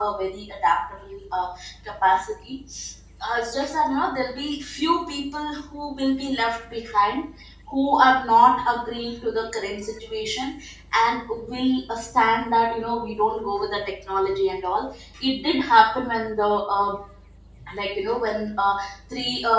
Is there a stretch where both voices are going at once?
No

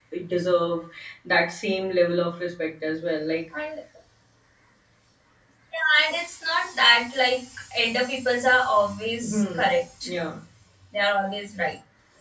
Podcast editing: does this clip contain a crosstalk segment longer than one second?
No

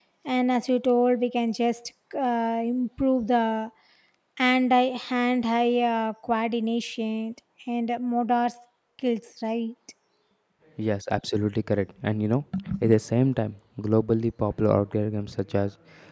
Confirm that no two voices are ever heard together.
Yes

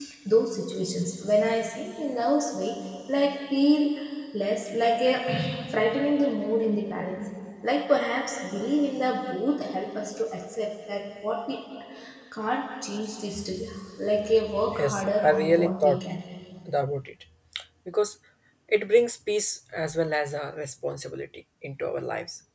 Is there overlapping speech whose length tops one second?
Yes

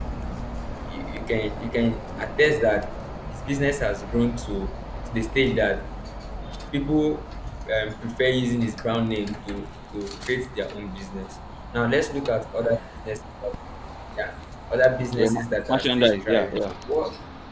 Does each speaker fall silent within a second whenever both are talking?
No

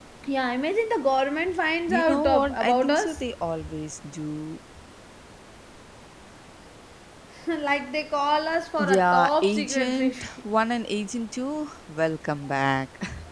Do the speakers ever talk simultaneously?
Yes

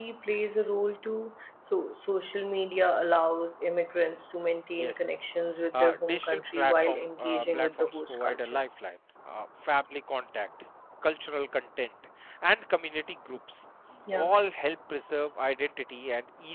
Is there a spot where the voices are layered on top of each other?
Yes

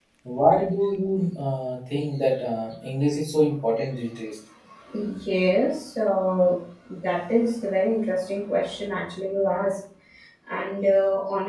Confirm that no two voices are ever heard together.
Yes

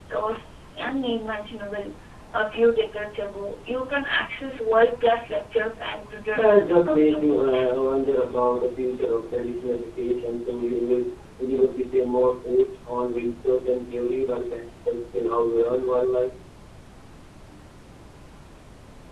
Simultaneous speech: Yes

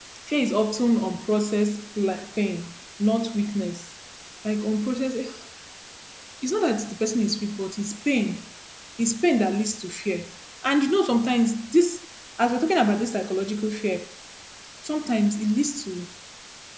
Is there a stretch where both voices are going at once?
No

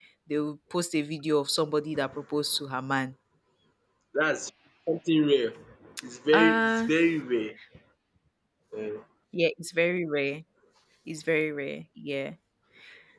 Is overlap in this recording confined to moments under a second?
Yes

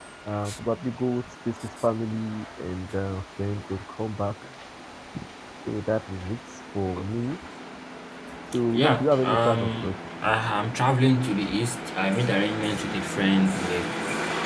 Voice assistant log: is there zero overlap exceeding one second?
No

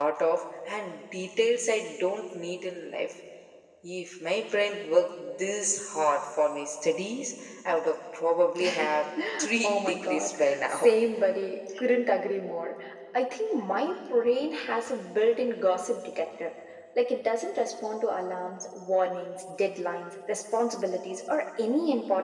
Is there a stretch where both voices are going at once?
Yes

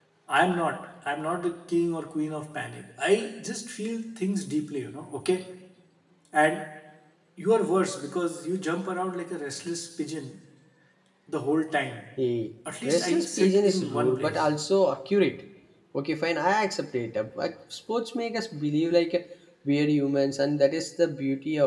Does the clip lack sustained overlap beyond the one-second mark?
No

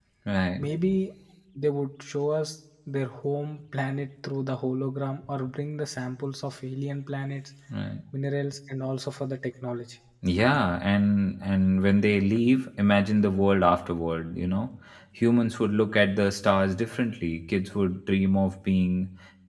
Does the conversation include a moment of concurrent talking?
No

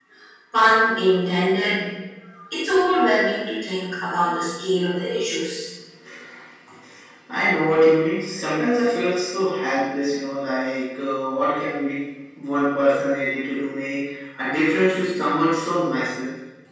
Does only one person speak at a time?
Yes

